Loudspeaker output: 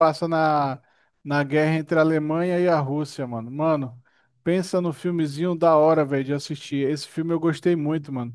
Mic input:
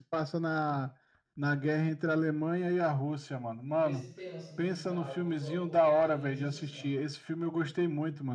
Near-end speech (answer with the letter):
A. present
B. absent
A